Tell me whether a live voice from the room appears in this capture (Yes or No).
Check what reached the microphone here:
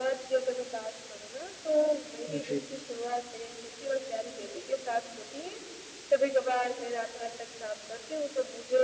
Yes